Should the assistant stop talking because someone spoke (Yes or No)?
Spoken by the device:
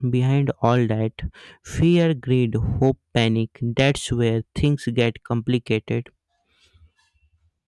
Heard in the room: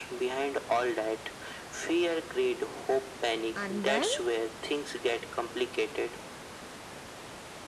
Yes